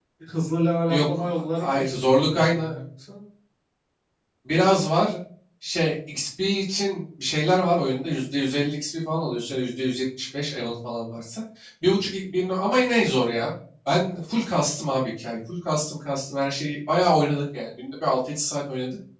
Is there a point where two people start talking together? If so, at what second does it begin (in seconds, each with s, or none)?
0.9 s